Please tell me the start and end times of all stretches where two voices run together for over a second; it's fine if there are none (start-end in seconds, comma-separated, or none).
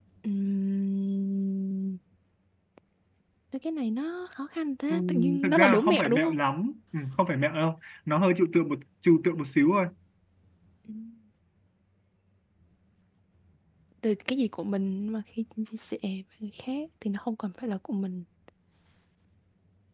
4.9-6.3